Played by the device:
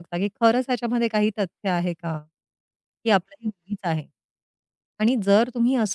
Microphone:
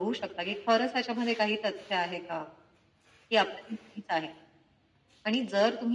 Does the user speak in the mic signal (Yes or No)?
No